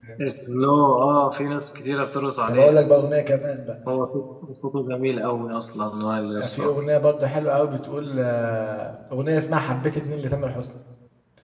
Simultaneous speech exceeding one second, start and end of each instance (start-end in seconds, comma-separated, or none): none